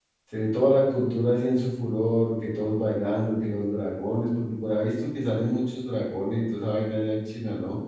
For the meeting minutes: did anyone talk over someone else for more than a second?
No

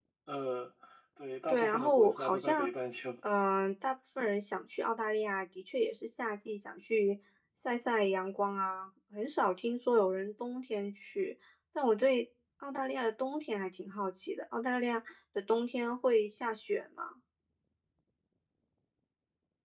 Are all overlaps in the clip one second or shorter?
No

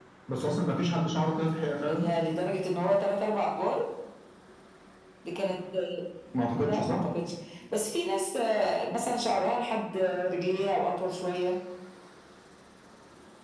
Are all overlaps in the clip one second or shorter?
Yes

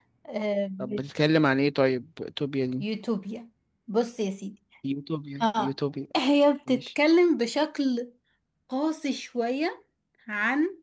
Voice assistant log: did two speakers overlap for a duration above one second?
No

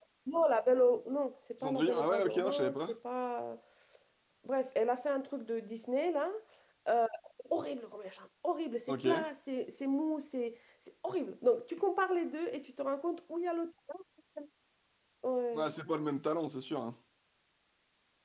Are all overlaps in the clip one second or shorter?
No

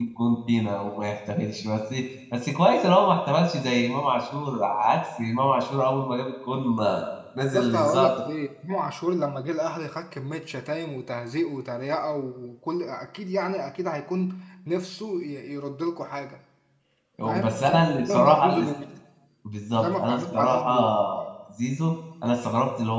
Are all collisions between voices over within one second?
No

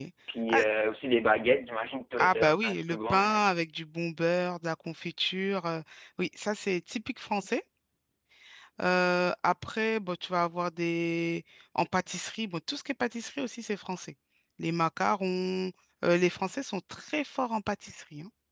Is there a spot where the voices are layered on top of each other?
Yes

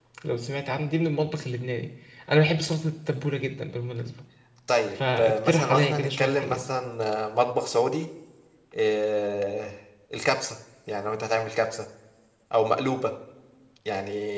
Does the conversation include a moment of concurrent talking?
Yes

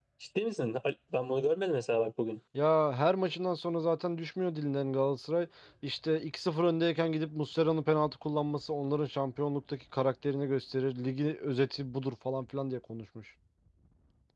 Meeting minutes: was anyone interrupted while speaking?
No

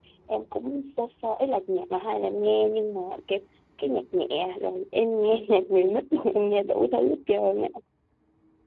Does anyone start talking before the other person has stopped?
No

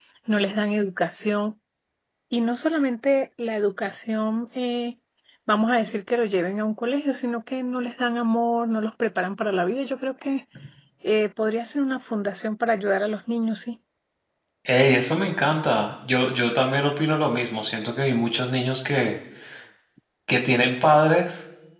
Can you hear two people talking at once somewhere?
No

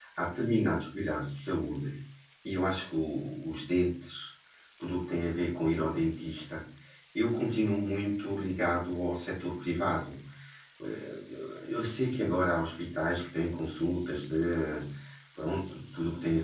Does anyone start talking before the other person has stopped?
No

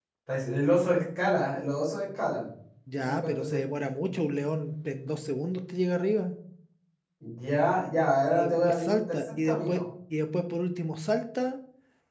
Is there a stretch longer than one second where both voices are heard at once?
Yes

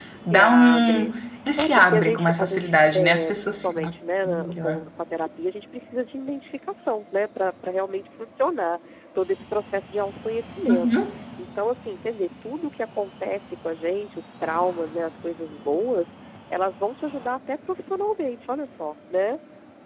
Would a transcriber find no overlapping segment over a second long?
No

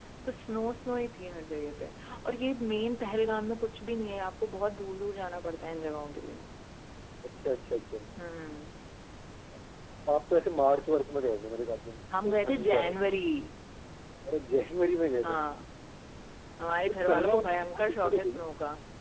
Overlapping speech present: Yes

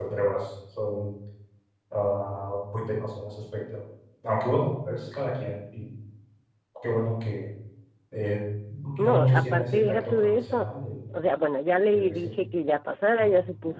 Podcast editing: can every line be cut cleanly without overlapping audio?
No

